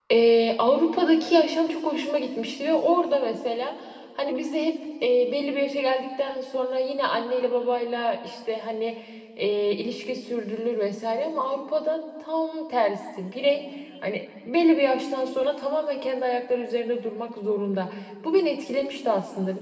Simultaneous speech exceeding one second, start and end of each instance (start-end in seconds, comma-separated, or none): none